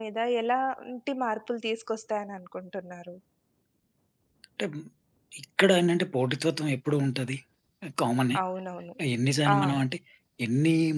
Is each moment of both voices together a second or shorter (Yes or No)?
Yes